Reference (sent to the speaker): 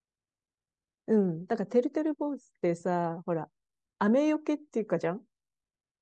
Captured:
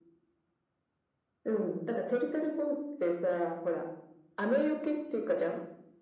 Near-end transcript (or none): none